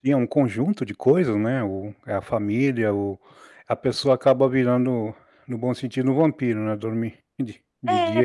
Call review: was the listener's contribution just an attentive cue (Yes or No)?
No